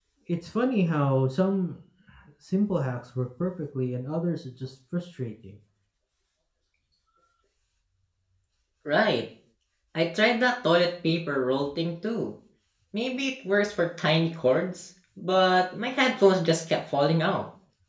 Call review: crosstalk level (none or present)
none